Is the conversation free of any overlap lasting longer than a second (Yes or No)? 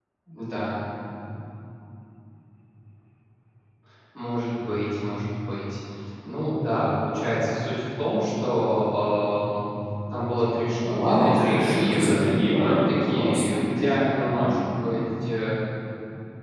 No